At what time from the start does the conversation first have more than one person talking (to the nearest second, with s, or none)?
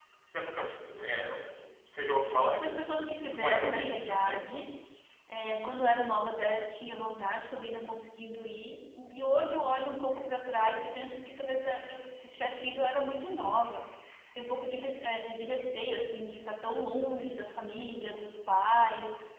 3 s